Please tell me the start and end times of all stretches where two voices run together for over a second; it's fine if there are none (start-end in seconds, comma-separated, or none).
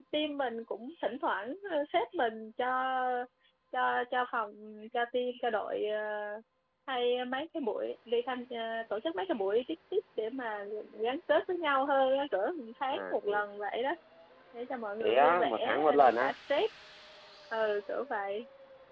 15.0-16.4